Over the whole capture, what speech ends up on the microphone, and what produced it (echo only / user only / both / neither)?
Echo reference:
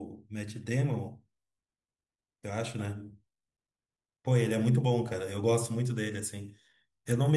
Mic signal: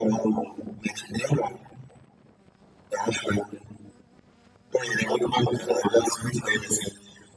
echo only